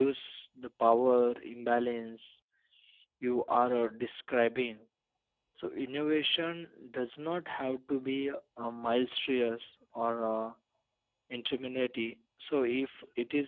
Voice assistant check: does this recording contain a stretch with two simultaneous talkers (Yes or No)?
No